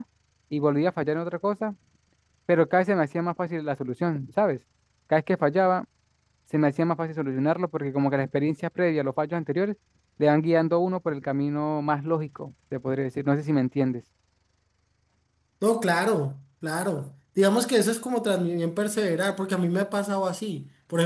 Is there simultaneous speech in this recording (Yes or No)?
No